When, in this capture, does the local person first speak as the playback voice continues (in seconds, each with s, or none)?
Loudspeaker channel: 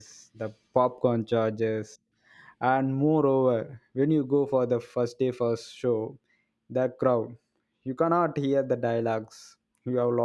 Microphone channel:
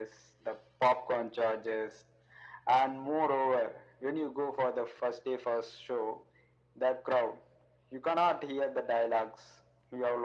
none